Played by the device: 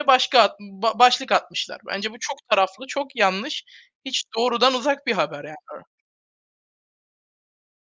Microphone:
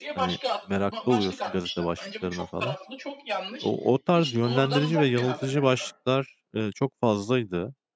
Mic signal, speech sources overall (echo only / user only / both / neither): both